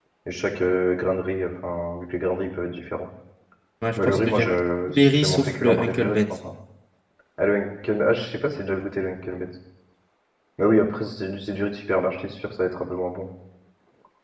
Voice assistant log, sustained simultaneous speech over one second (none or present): present